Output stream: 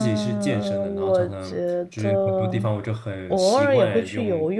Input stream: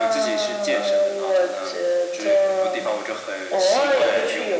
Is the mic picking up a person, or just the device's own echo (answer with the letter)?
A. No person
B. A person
A